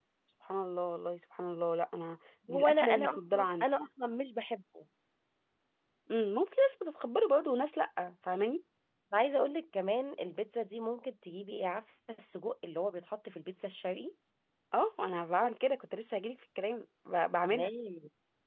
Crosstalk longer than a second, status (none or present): present